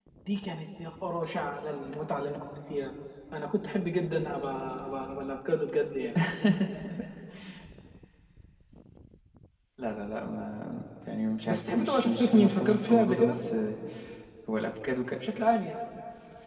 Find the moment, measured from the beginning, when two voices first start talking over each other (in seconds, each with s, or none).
11.5 s